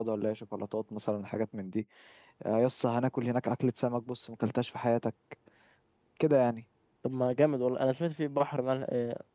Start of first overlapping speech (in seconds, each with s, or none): none